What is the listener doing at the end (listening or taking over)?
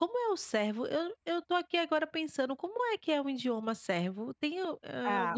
taking over